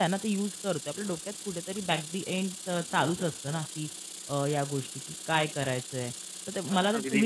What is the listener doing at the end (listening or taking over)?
listening